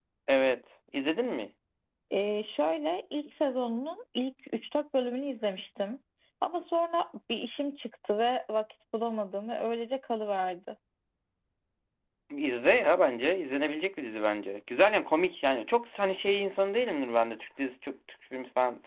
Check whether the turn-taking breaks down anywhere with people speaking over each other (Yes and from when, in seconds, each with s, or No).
No